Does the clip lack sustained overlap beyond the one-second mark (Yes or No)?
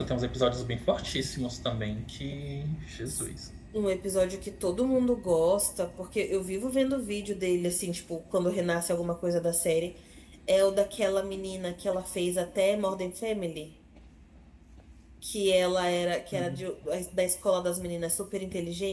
Yes